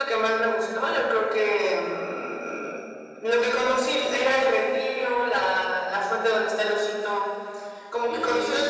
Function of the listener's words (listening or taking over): taking over